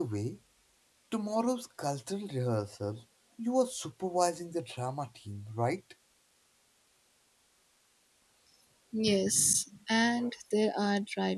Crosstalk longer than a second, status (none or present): none